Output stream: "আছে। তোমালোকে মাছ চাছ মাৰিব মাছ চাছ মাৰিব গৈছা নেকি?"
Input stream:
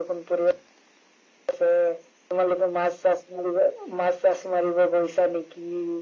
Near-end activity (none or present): none